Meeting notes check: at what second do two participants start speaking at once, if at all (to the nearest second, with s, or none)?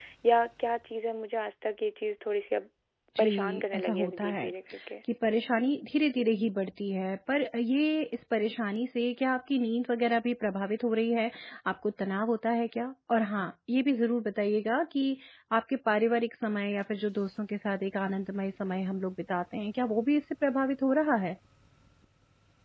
3 s